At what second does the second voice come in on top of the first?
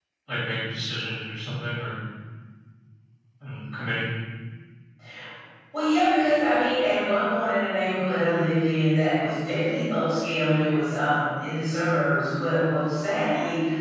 none

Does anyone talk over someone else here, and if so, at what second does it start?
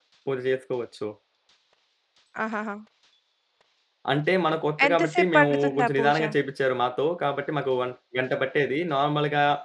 4.8 s

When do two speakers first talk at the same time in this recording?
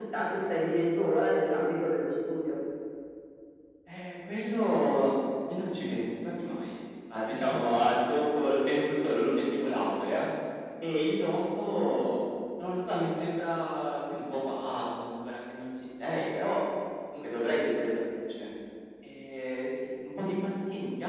none

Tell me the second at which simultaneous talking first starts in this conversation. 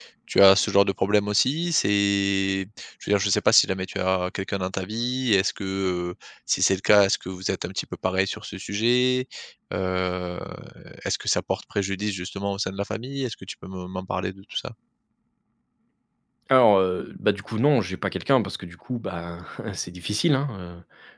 none

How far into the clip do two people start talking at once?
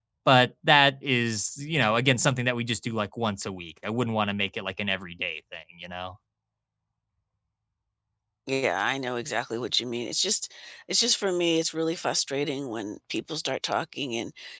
none

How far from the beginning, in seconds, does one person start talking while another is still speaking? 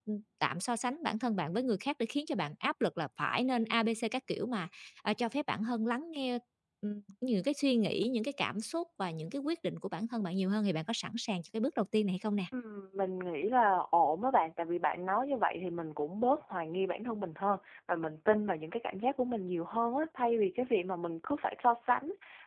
none

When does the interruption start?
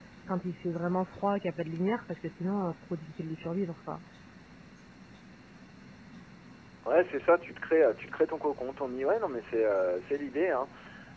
none

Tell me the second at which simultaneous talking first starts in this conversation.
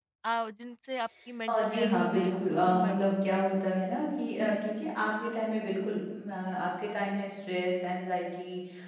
1.5 s

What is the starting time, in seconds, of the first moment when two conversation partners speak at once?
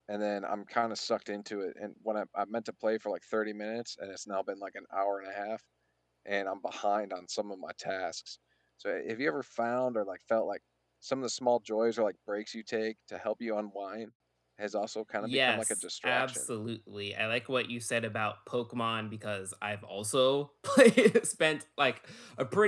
15.2 s

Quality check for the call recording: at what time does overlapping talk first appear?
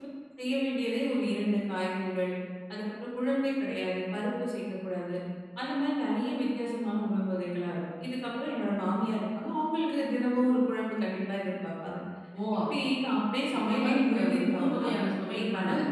13.7 s

